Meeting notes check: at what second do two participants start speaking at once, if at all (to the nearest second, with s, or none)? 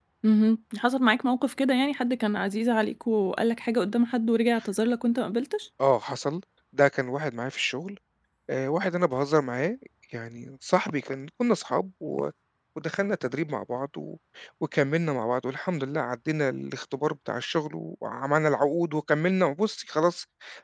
none